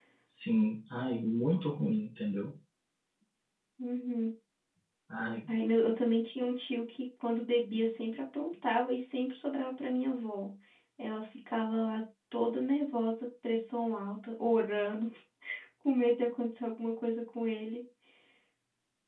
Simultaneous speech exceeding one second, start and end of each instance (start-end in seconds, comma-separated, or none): none